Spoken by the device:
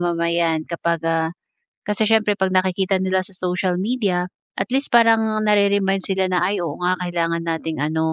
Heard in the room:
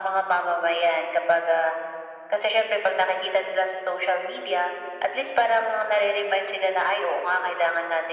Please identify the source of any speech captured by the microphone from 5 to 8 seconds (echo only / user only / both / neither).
echo only